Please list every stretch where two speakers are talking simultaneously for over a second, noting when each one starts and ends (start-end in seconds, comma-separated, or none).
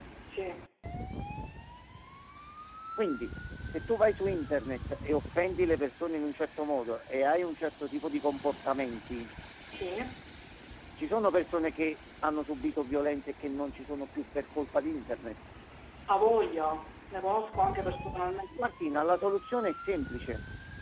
none